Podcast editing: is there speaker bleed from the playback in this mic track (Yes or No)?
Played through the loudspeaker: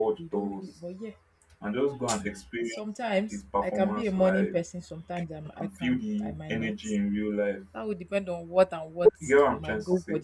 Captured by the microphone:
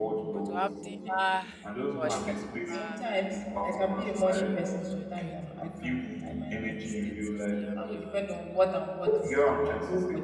Yes